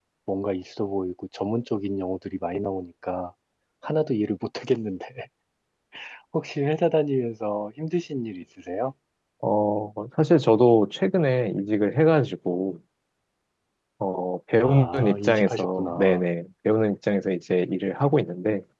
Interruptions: present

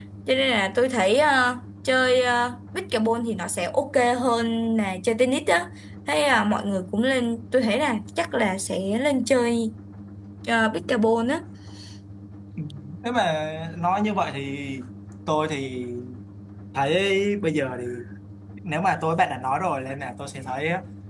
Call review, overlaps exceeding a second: none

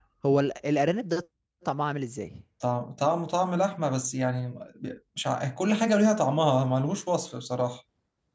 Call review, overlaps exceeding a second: none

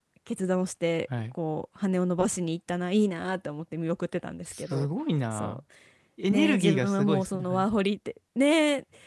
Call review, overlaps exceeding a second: present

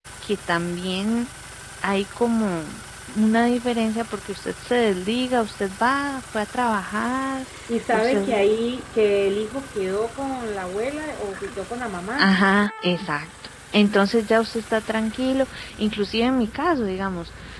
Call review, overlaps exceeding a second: none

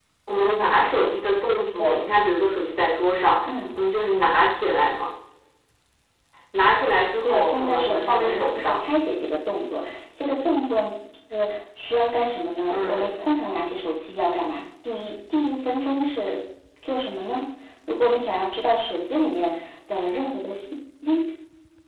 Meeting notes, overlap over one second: present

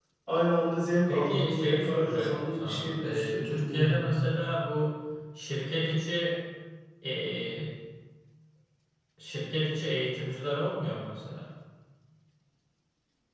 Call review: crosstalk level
present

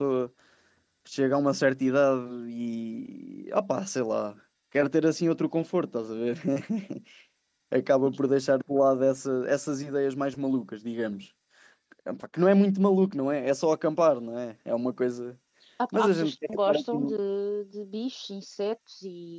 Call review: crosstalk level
present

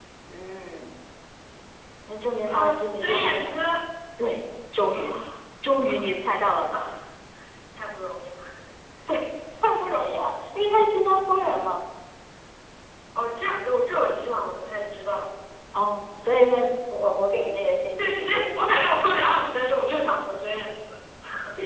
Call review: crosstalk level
present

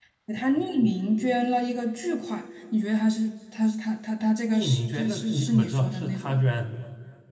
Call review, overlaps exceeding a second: present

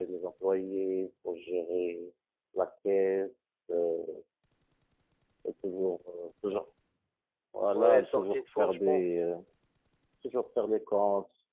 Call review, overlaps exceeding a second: present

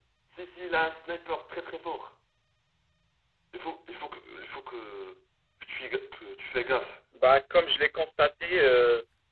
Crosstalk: none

